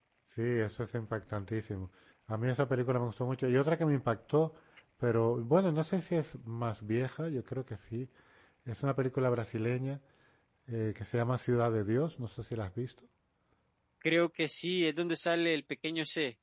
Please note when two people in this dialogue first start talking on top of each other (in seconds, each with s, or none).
none